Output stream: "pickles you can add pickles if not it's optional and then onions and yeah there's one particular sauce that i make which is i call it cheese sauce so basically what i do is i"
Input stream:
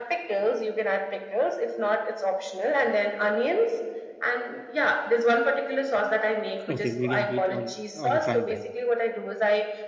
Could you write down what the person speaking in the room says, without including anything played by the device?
Okay, medium heat on on a frying pan.

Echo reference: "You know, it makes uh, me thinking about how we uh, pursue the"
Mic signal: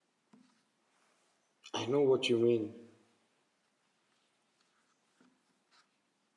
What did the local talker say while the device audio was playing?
I know what you mean.

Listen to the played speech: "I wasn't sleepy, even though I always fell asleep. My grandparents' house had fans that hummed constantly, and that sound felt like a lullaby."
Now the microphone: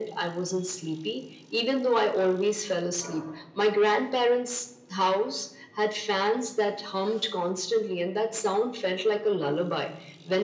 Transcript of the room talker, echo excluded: none

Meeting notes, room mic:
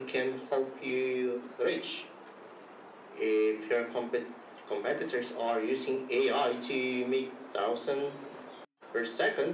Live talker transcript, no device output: none

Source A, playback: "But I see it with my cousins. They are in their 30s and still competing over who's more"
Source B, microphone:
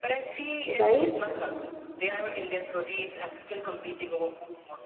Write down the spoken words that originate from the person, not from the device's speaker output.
Right?

